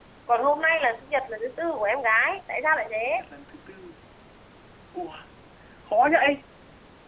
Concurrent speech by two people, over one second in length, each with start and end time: none

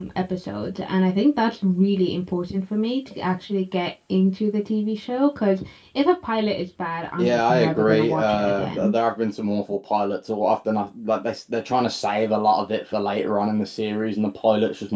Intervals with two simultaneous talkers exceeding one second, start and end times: 7.2-8.9

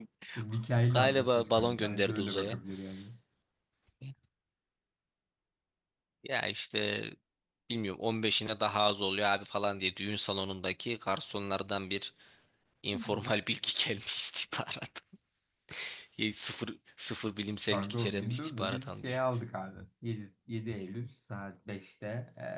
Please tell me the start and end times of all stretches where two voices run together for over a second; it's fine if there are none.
0.9-2.5, 17.7-19.2

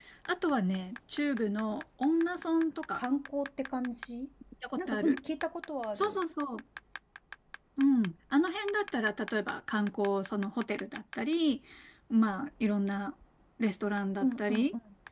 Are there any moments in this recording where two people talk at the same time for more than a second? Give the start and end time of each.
none

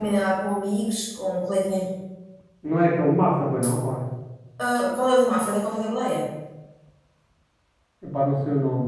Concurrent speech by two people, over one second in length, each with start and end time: none

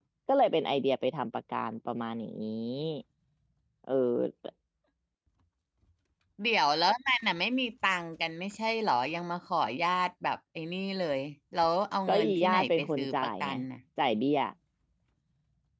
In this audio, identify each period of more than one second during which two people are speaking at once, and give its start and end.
12.1-13.5

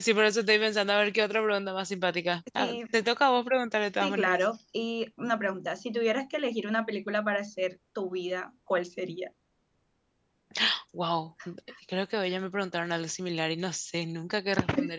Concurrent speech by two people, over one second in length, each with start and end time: none

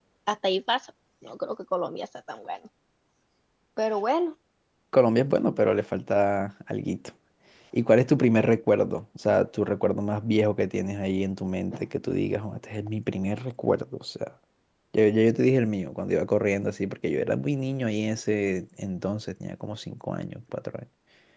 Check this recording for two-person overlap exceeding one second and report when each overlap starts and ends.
none

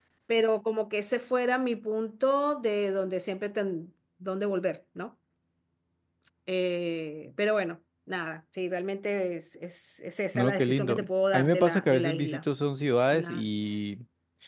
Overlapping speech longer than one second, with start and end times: 10.4-12.4

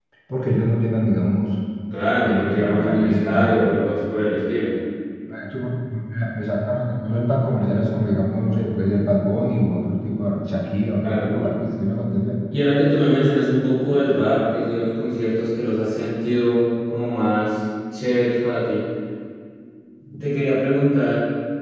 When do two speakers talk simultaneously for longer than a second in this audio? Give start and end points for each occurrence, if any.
2.2-3.7

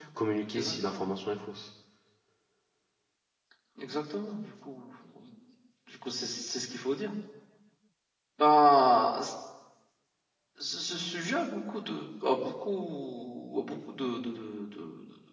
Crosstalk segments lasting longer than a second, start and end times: none

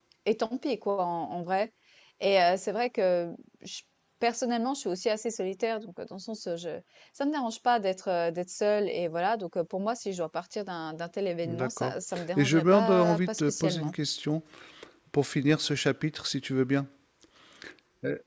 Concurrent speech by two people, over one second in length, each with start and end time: 12.4-13.9

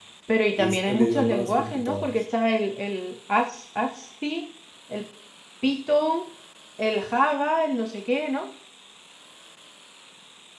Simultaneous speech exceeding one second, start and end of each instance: 0.6-2.2

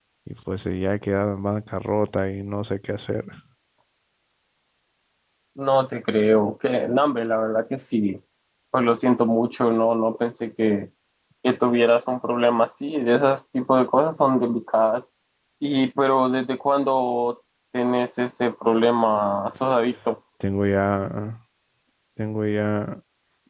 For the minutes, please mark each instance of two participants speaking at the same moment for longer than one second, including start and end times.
none

